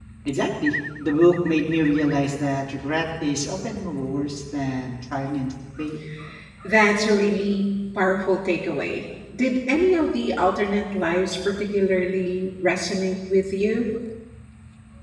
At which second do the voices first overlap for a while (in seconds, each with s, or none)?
none